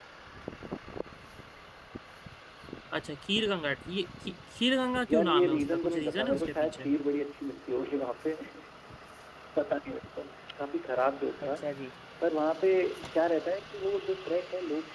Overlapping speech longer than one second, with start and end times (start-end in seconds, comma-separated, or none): 5.1-6.9